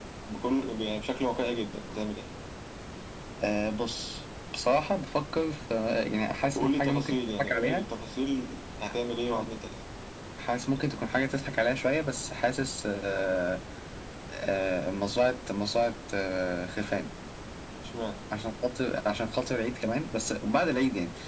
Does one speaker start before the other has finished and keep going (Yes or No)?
Yes